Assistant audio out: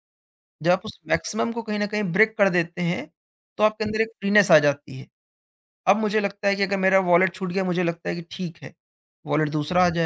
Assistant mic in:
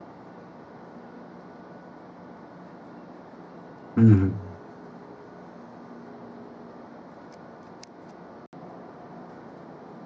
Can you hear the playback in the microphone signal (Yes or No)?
No